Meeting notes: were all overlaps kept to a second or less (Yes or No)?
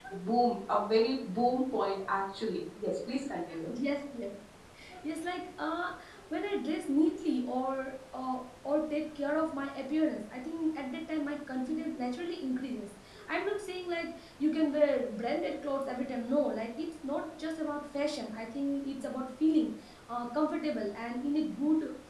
Yes